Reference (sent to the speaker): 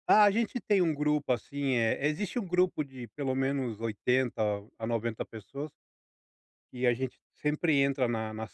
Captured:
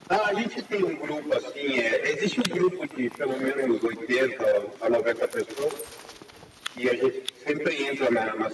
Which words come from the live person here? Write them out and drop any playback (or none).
none